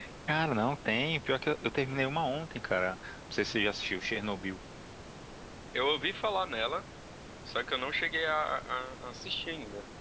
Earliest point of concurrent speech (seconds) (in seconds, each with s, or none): none